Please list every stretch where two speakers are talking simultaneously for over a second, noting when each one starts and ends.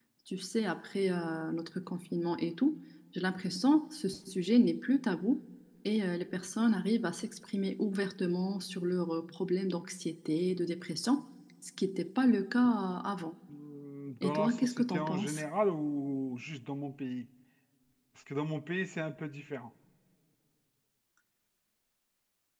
14.2-15.4

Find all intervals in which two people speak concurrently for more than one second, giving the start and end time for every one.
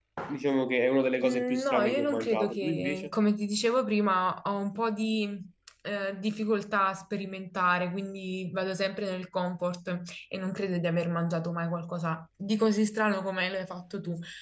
1.3-3.1

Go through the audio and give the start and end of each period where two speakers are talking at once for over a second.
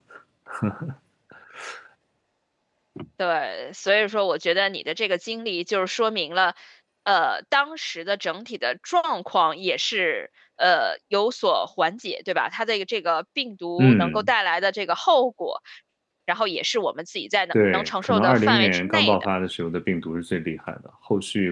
17.7-19.2

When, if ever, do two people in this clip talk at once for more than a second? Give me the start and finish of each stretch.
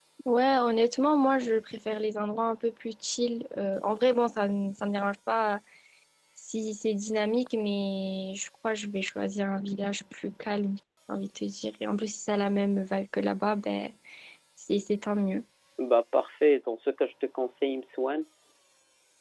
none

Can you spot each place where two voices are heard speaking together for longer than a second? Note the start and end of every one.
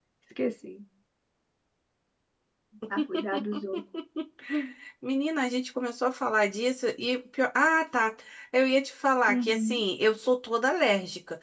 none

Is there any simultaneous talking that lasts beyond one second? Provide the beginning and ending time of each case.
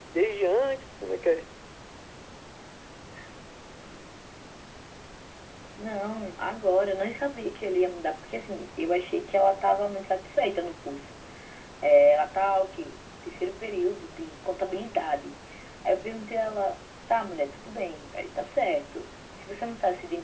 none

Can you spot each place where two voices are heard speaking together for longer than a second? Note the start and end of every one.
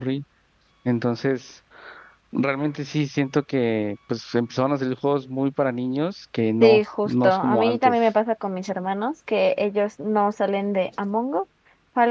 6.6-8.0

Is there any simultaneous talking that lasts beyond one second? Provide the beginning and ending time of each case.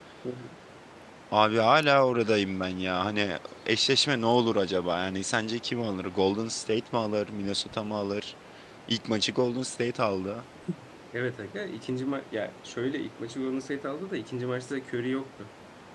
none

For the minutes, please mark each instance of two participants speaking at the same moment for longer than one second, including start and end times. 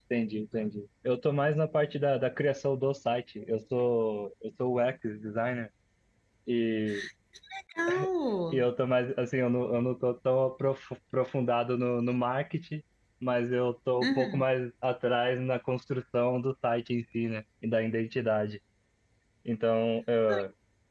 none

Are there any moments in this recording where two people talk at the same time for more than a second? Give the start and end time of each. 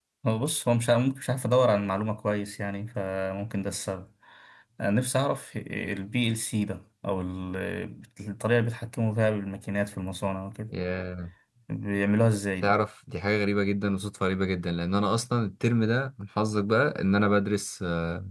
none

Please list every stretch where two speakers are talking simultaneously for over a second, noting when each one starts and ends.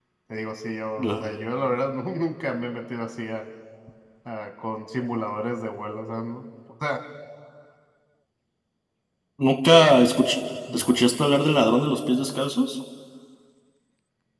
none

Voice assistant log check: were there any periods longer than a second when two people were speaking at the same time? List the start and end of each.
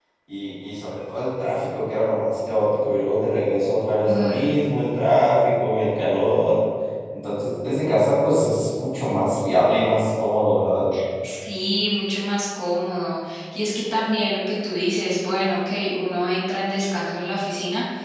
none

